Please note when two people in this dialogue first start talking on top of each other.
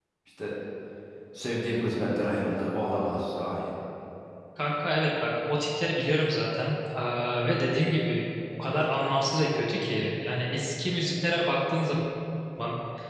none

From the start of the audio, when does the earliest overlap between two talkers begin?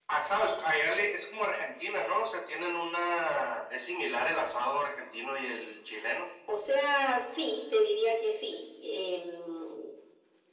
none

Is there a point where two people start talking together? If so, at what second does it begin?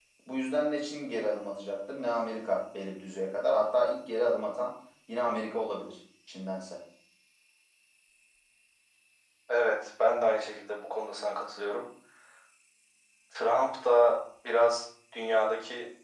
none

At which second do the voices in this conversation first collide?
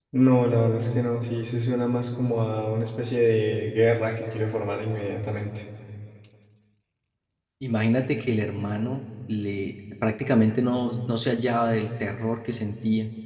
none

